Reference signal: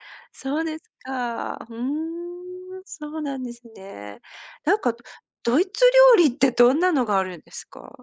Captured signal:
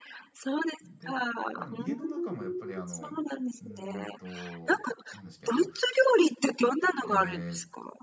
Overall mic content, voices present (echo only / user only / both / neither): both